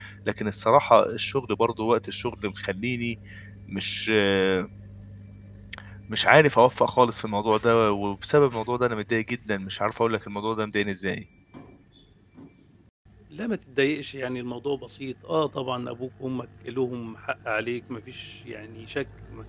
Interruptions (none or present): none